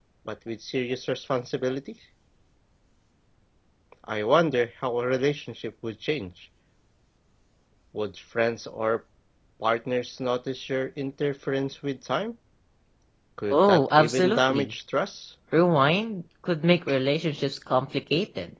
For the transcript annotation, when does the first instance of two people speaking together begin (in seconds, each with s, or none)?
13.5 s